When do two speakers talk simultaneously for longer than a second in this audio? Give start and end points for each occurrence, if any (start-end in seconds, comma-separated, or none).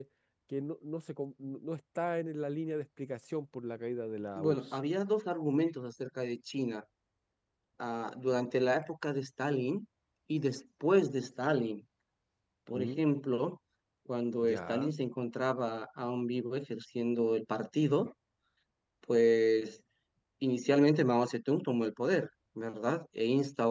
none